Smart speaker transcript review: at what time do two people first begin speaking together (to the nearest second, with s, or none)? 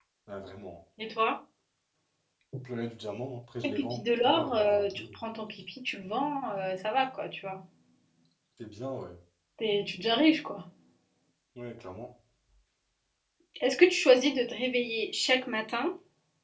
4 s